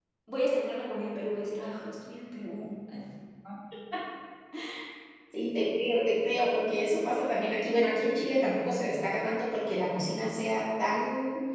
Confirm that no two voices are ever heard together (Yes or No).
Yes